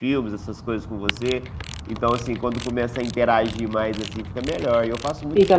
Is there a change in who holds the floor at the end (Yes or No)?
Yes